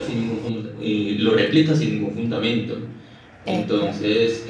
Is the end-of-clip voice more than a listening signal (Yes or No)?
No